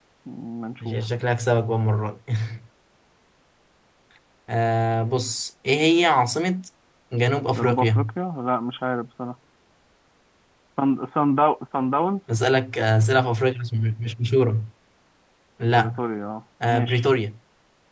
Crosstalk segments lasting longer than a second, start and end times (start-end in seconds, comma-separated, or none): none